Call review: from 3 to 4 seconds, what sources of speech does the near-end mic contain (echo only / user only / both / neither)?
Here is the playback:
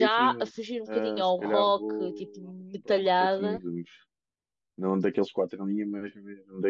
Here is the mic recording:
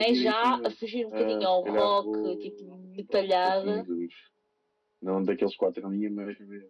echo only